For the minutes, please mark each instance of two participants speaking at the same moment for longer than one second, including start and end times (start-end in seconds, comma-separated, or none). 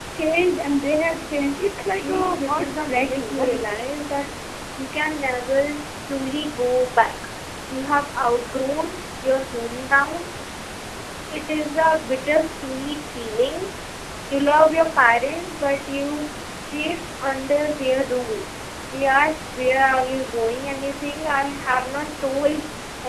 1.9-3.8